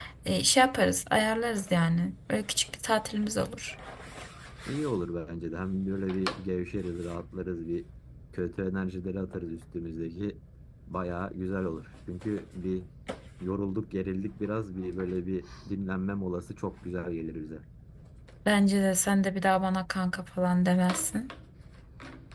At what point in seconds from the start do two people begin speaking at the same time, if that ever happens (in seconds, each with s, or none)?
none